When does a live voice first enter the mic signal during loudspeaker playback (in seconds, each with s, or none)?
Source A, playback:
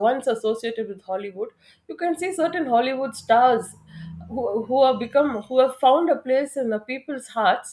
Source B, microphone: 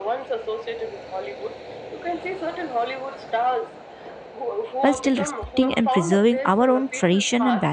4.8 s